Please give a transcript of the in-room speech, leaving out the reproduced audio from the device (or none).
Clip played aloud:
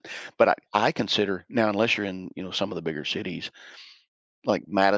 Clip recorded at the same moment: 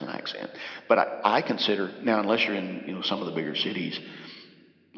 none